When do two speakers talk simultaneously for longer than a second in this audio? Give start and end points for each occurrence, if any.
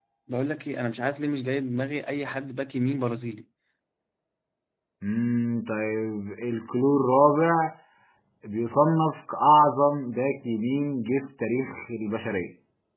none

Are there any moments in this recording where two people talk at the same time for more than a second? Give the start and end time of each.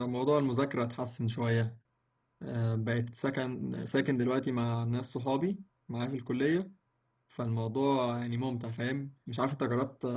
none

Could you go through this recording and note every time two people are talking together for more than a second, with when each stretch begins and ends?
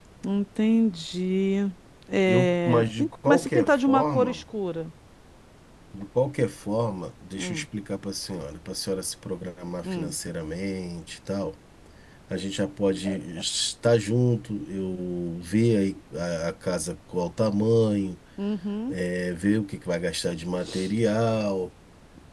2.3-4.4

